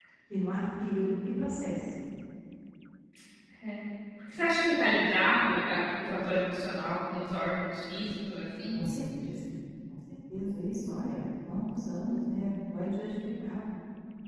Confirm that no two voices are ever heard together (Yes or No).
Yes